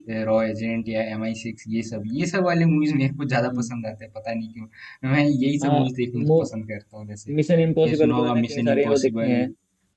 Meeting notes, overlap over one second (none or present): present